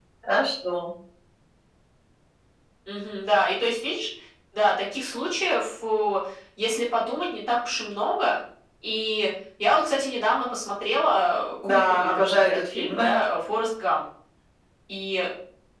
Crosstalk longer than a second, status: present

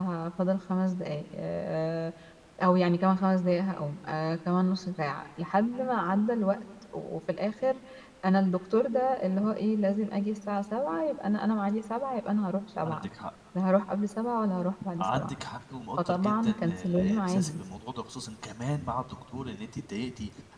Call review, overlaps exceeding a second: present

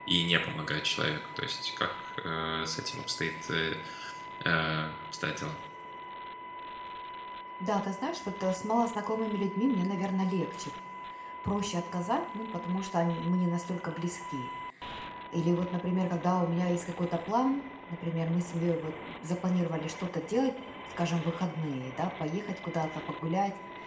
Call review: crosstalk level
none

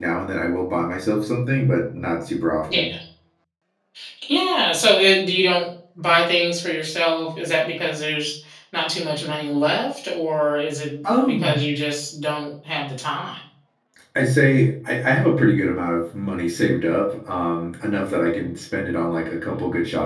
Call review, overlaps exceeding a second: none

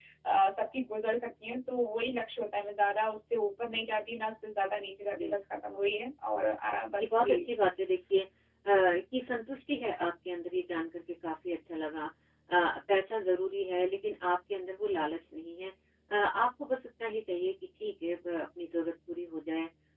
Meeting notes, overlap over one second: none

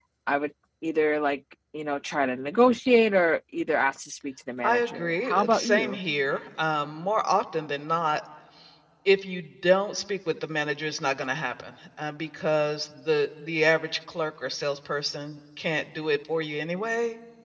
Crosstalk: present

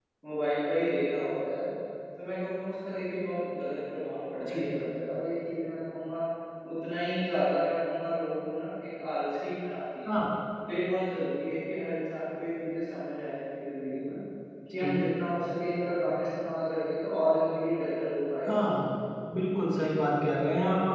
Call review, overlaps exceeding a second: none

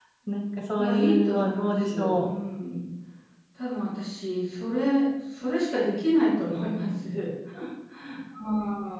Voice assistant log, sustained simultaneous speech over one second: present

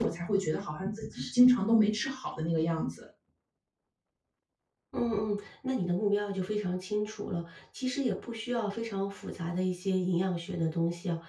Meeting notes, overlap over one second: none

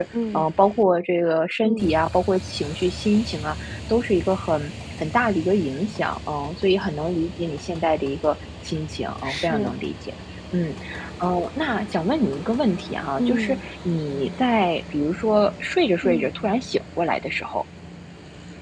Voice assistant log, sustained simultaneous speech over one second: none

